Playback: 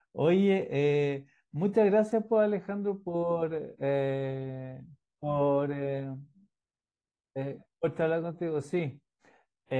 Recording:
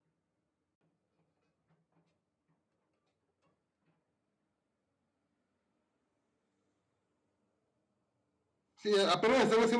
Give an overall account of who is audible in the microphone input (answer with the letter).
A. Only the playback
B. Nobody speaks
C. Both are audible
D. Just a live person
D